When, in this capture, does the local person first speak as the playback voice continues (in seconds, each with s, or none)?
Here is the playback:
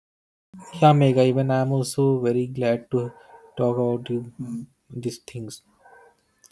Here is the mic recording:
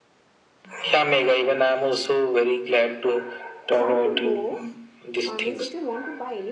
3.7 s